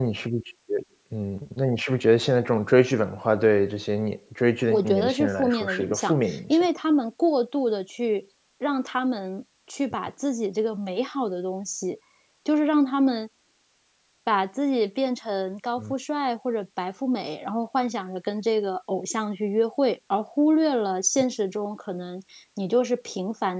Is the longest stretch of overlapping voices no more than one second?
No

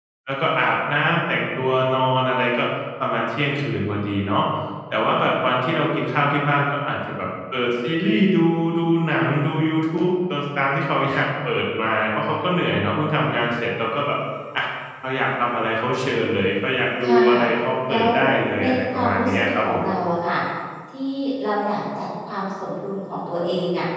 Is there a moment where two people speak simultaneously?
Yes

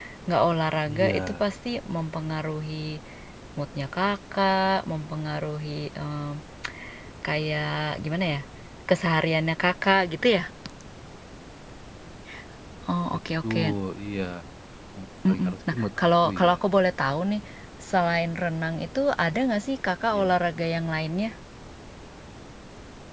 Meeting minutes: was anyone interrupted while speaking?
Yes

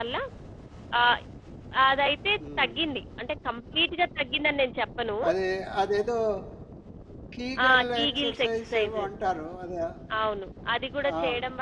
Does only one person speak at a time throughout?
No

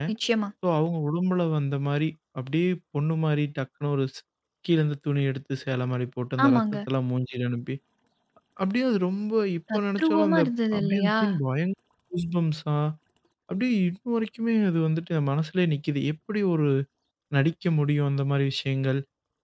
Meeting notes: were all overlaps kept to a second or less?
No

